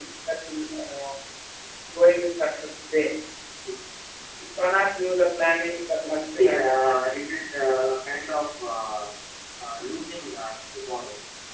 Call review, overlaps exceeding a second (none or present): none